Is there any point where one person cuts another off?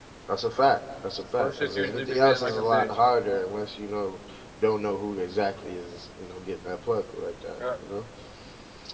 Yes, from 1.4 s

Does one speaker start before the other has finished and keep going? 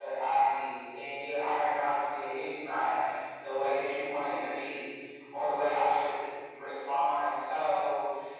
No

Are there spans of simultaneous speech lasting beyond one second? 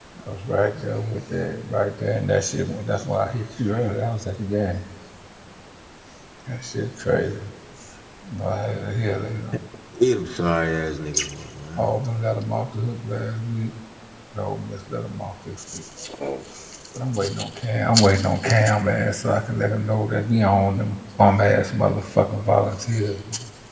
No

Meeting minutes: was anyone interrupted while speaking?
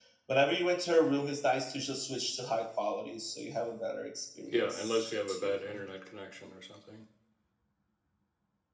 Yes, from 4.5 s

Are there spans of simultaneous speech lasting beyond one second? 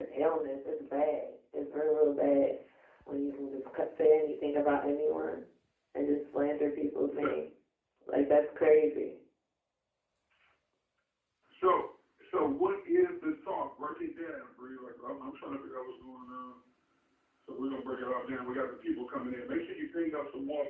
No

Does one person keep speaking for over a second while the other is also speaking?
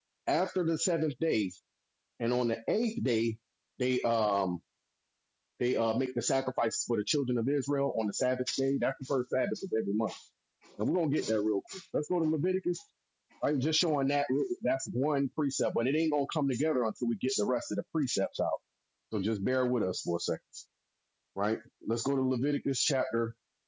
No

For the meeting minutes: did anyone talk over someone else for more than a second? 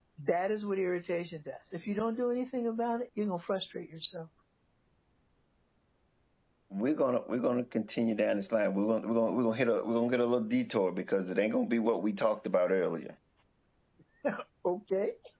No

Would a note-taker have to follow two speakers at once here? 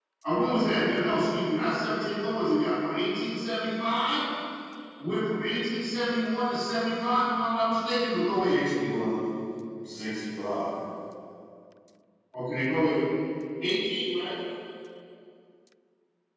No

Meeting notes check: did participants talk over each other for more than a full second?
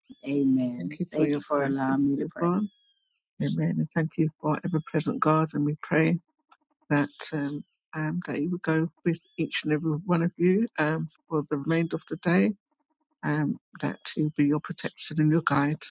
Yes, from 0.8 s

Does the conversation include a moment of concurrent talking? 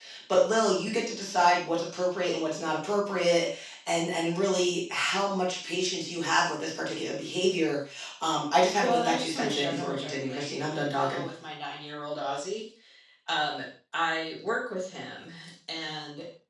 Yes, from 8.8 s

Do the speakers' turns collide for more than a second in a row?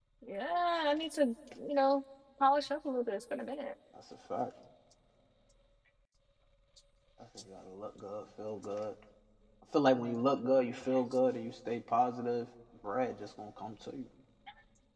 No

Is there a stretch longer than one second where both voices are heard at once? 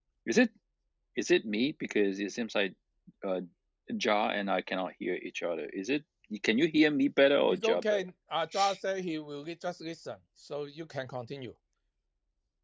No

